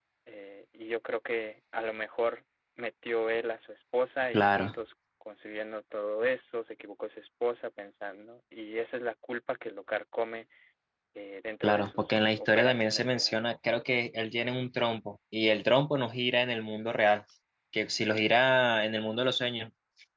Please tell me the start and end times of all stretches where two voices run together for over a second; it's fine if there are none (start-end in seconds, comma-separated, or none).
11.6-13.5